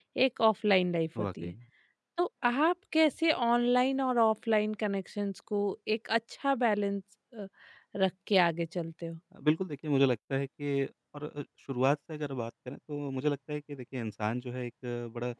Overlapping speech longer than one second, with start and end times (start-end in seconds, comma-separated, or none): none